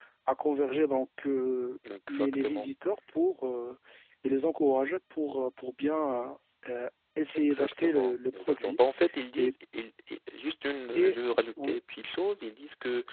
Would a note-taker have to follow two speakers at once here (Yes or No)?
Yes